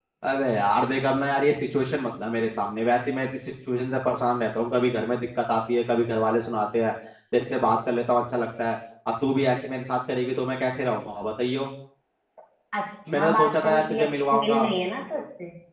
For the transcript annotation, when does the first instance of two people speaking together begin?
13.1 s

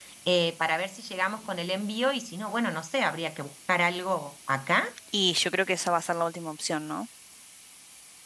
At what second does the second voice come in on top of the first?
none

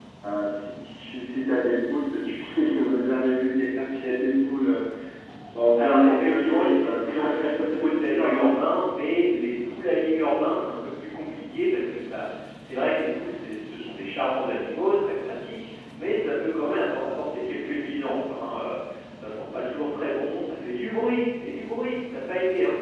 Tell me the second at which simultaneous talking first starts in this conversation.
5.8 s

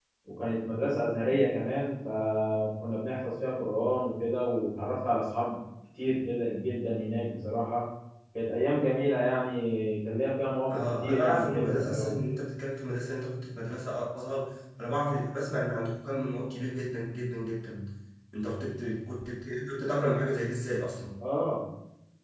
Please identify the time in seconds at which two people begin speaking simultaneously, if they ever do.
10.7 s

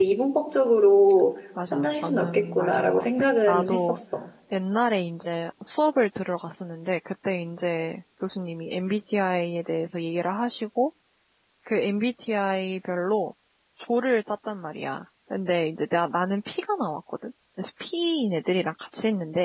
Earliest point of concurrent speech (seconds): 1.6 s

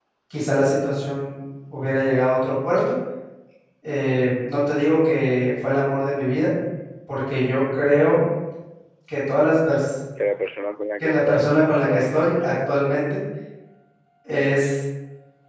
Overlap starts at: 11.0 s

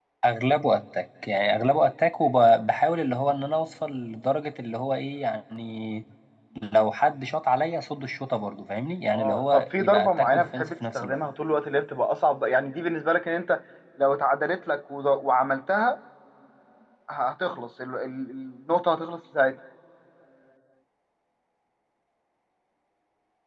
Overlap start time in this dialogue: 9.1 s

